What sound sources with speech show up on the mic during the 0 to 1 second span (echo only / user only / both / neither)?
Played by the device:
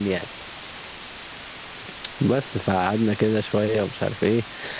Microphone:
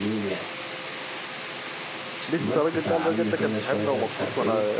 echo only